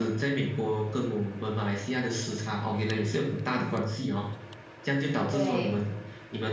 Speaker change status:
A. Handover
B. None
B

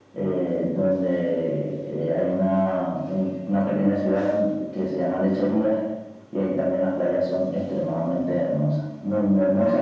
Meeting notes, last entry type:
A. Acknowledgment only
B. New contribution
A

